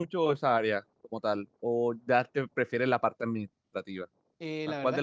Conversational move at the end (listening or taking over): taking over